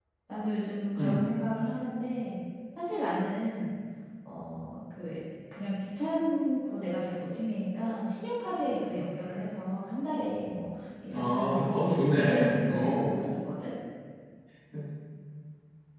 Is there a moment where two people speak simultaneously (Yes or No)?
Yes